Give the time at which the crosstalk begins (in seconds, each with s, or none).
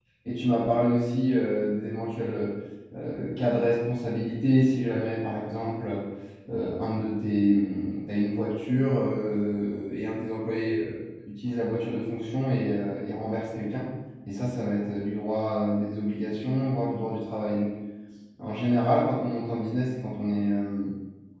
none